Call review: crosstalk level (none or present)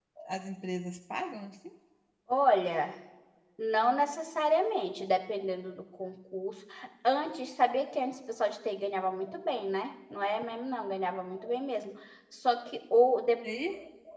none